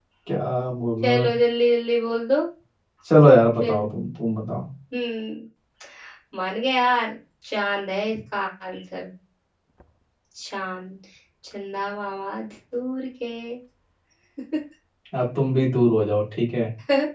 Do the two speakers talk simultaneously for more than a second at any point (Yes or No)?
No